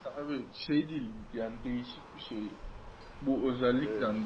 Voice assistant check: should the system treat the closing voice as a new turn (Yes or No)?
No